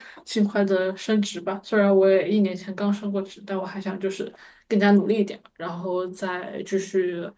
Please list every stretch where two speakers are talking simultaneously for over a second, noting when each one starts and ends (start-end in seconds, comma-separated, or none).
none